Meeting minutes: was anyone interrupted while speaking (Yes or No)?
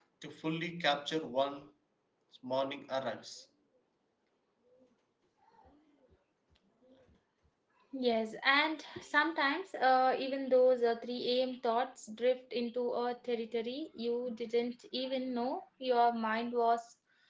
No